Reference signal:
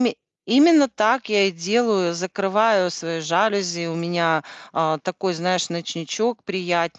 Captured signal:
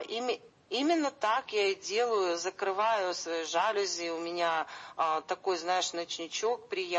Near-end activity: none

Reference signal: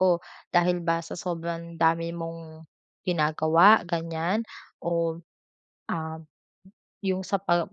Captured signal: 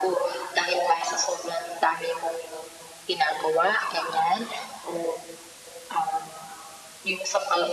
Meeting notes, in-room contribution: none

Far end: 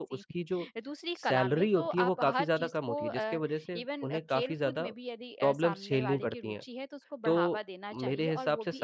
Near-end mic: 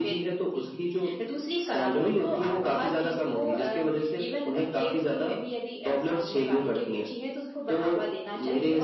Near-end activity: none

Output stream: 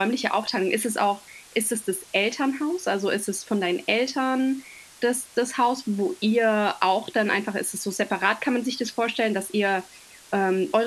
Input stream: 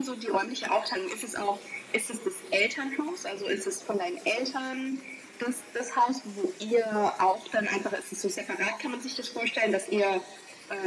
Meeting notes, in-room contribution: none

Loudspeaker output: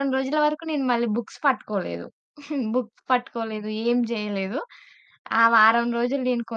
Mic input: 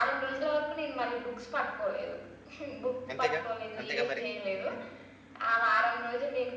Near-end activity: present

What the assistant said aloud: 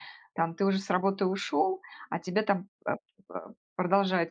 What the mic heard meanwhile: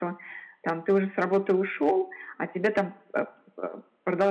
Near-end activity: none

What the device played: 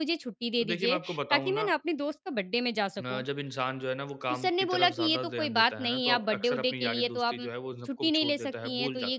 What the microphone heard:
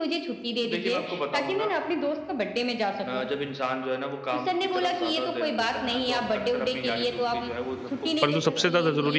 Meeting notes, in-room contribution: present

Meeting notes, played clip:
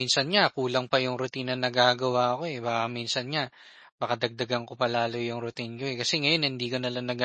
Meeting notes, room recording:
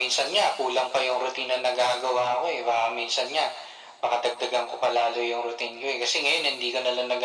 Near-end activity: none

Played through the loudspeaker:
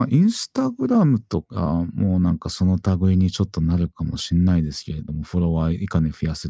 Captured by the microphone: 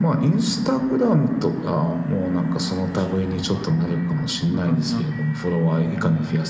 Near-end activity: present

